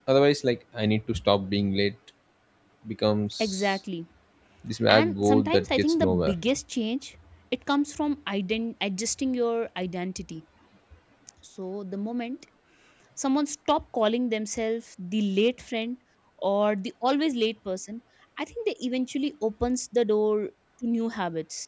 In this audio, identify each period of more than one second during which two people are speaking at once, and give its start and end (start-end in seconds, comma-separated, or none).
4.9-6.3